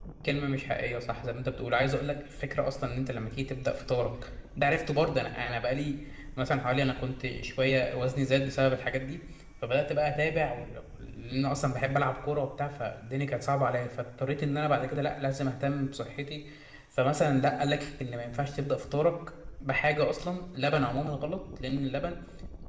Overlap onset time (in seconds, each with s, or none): none